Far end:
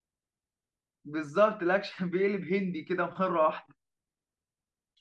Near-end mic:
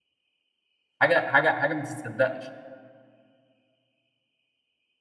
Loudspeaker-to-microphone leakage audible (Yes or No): No